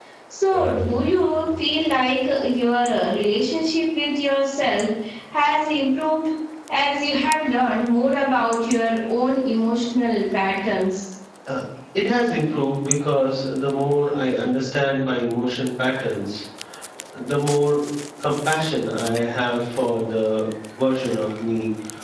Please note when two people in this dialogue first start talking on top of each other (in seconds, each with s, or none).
none